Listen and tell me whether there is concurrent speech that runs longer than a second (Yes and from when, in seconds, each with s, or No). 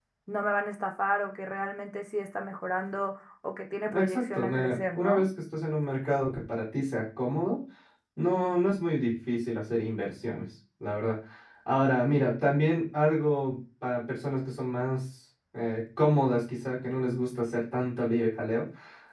Yes, from 3.8 s